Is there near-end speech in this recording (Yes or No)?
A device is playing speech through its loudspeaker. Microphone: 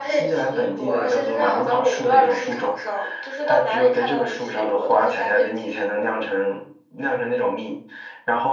No